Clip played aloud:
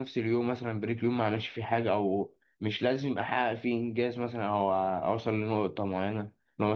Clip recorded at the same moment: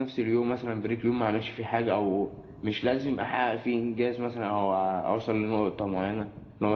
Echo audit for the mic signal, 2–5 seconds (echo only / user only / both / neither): echo only